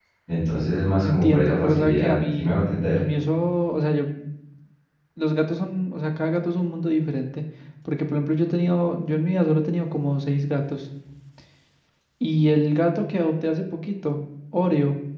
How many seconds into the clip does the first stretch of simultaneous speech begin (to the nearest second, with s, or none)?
1 s